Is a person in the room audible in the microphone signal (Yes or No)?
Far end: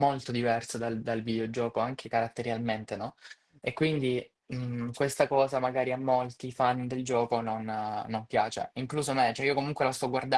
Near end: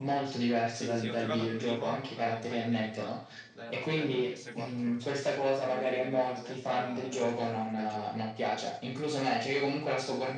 Yes